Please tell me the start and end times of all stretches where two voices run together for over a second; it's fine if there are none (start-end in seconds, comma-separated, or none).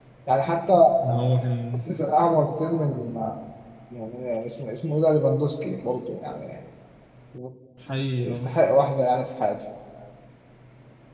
none